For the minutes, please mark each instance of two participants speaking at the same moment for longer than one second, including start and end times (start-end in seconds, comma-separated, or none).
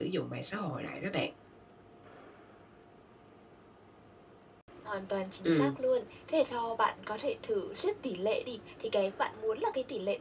none